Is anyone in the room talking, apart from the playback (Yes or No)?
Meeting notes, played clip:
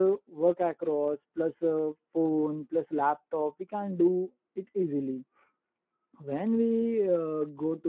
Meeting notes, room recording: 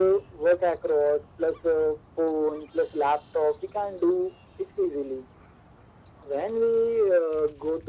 No